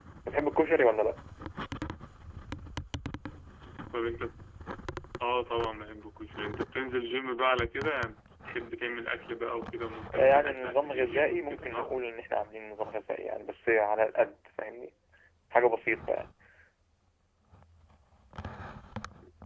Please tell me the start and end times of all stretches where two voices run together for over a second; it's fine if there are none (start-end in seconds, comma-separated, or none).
10.1-11.9